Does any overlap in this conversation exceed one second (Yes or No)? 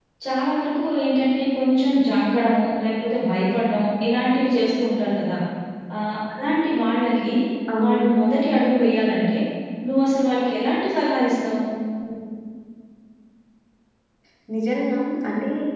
No